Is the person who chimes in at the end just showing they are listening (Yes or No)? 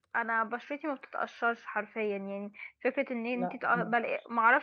Yes